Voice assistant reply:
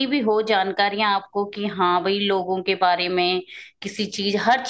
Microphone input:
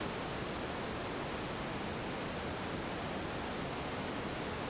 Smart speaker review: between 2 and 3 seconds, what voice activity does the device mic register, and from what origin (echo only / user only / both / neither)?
neither